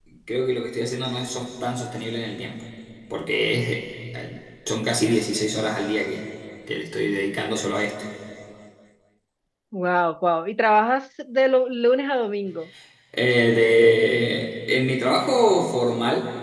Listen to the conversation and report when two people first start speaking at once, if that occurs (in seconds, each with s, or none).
none